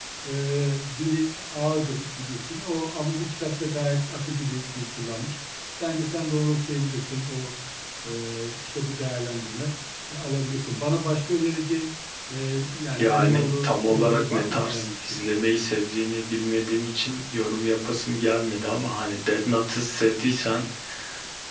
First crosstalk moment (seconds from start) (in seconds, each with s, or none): 13.0 s